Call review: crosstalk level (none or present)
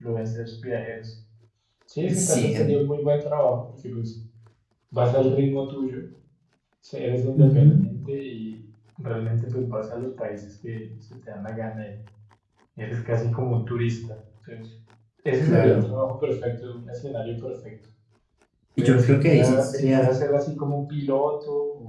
present